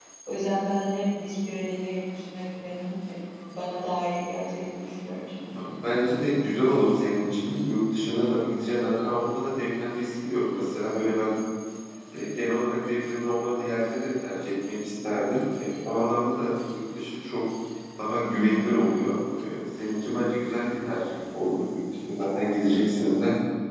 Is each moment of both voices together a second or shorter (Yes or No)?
Yes